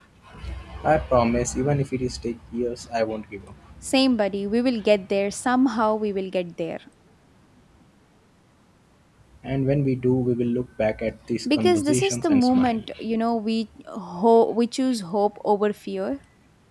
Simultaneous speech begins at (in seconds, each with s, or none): 11.4 s